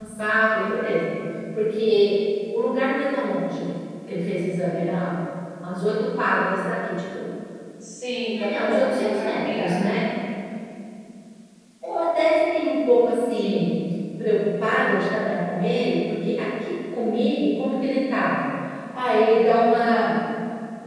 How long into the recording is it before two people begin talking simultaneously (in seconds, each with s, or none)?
8.5 s